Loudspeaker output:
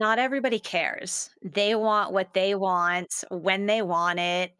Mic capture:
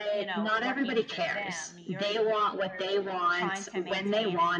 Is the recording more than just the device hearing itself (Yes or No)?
Yes